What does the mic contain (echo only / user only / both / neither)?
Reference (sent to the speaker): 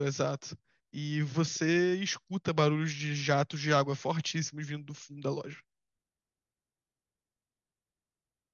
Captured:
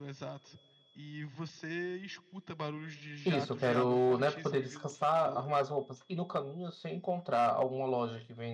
both